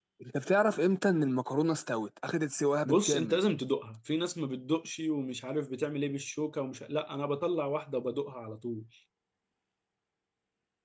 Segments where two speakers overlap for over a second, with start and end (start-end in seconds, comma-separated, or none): none